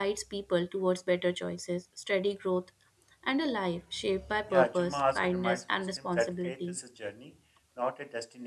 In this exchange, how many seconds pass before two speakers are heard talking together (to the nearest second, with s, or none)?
4 s